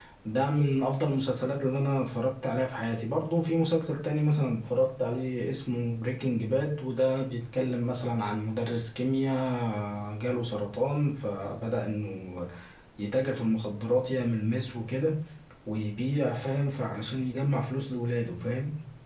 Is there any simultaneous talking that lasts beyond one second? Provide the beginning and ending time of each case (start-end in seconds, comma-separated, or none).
none